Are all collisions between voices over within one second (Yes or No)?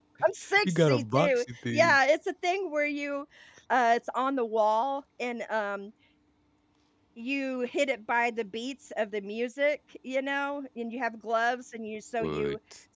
No